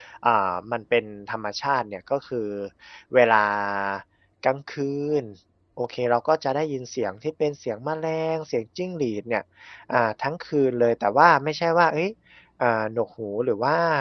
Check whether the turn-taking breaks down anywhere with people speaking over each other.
No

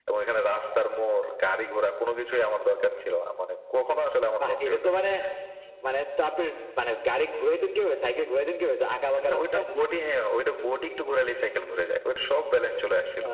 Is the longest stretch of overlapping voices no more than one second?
Yes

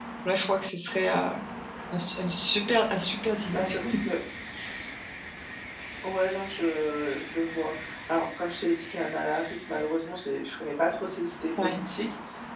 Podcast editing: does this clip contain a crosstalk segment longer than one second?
No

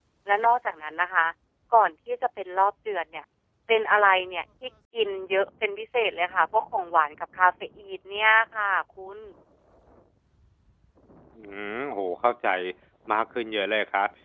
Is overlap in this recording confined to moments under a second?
Yes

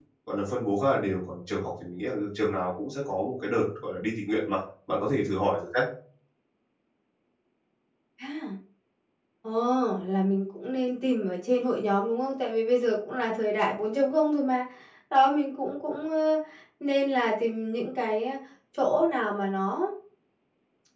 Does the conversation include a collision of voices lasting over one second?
No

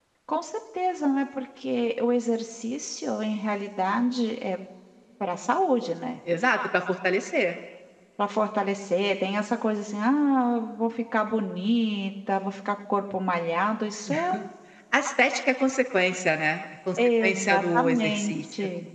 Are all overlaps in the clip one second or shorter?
No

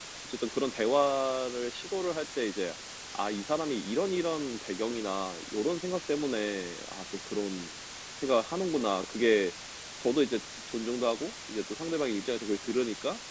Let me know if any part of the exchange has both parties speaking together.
No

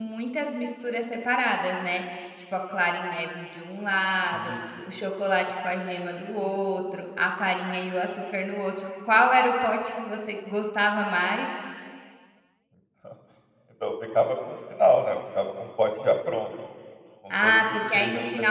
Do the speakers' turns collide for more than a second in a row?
Yes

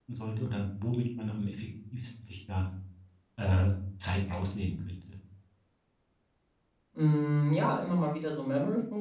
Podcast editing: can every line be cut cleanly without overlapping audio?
Yes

